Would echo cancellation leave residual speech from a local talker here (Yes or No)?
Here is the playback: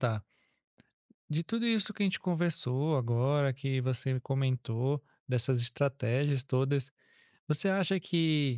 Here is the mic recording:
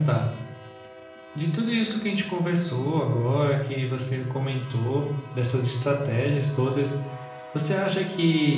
No